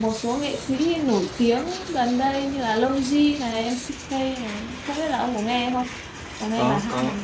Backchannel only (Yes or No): No